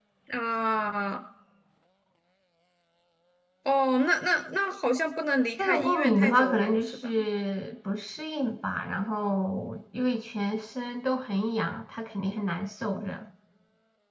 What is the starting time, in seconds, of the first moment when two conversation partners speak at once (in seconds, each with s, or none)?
5.6 s